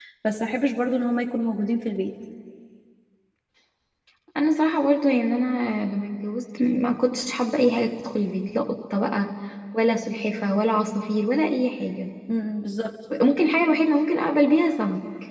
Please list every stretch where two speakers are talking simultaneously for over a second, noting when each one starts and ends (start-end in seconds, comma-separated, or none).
none